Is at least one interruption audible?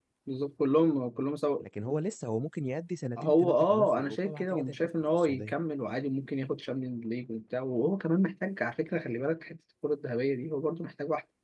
Yes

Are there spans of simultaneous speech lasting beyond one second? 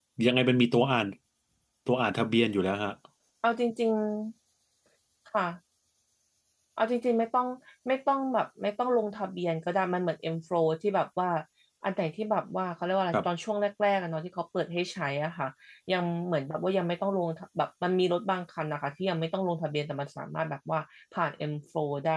No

